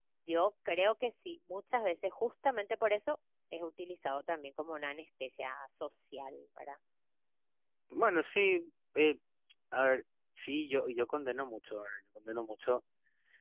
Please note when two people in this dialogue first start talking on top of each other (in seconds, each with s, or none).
none